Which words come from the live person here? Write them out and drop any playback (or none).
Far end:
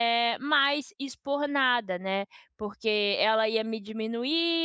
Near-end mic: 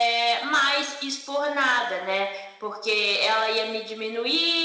none